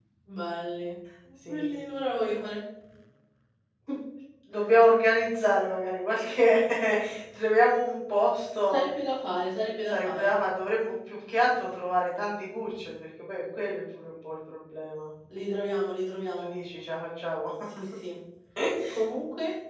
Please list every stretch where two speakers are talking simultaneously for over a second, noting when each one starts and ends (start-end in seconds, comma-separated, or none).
none